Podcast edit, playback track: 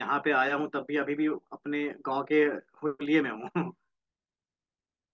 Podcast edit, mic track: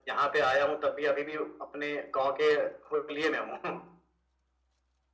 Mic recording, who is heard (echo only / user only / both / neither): echo only